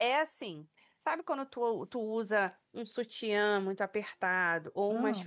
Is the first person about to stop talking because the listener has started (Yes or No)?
No